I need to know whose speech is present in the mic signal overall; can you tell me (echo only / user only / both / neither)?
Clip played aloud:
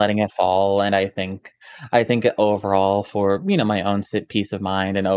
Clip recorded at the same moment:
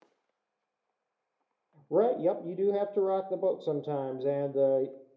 user only